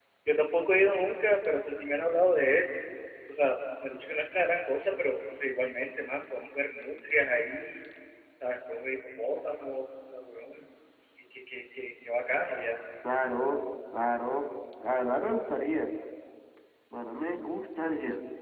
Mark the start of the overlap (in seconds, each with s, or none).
none